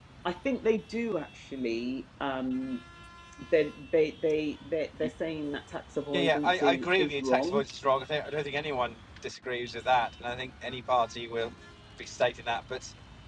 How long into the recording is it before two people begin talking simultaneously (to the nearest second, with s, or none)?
6 s